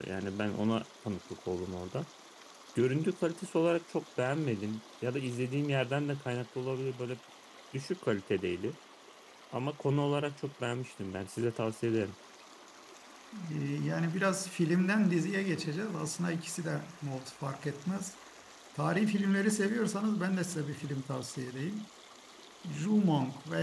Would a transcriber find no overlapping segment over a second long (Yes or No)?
Yes